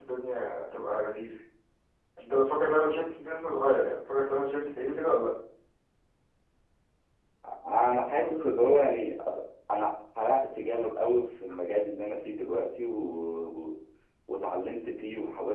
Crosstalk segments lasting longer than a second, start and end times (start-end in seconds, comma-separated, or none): none